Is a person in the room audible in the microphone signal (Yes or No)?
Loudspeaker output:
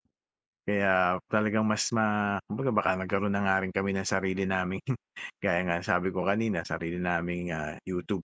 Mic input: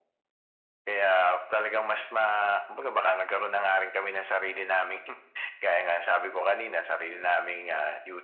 No